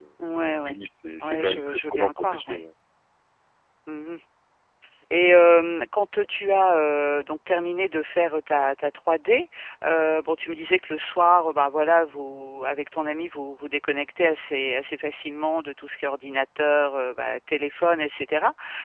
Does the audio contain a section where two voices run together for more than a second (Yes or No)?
Yes